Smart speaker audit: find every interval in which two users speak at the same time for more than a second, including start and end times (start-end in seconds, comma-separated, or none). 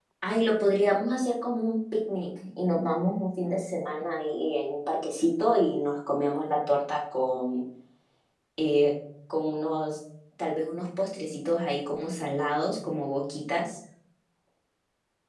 none